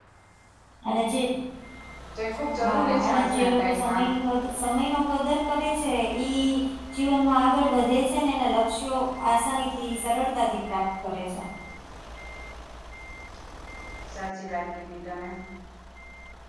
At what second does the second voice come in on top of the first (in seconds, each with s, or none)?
2.6 s